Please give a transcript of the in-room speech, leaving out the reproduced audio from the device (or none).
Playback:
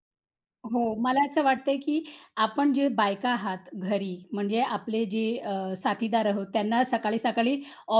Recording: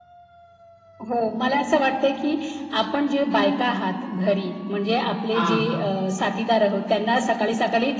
हां, हां.